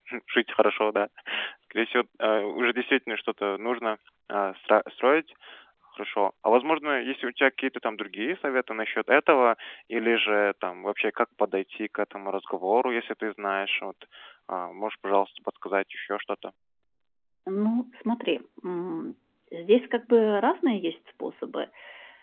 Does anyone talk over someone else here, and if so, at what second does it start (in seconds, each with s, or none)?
none